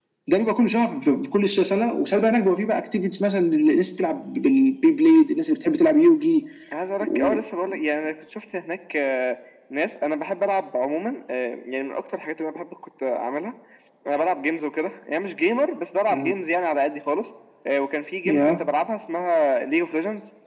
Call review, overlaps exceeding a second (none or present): none